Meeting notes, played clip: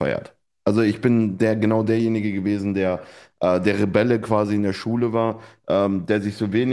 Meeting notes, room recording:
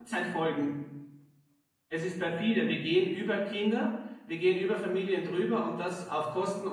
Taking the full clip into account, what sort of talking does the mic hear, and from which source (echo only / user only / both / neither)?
user only